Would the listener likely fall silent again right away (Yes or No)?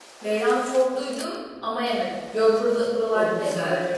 No